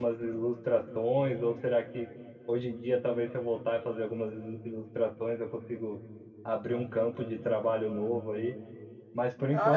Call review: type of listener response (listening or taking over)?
taking over